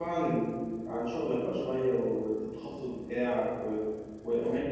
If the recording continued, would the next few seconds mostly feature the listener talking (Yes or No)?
No